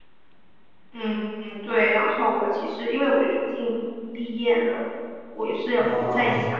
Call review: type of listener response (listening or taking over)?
listening